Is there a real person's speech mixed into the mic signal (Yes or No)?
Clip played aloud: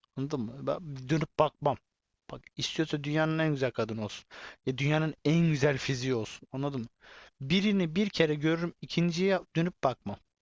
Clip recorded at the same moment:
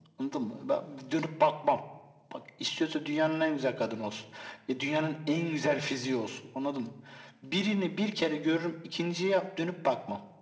No